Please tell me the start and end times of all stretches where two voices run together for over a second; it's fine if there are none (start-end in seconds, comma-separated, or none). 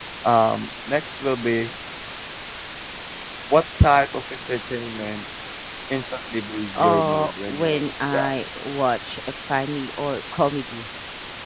6.8-8.6